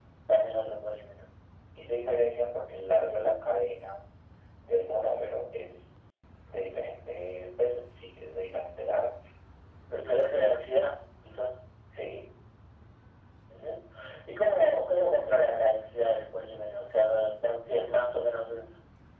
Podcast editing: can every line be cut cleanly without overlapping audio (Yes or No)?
Yes